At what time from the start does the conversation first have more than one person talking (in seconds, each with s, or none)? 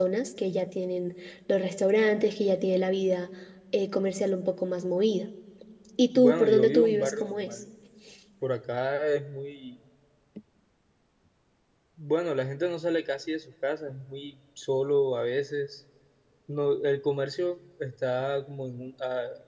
6.2 s